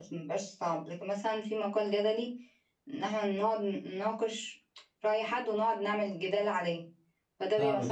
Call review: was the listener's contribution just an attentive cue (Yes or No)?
No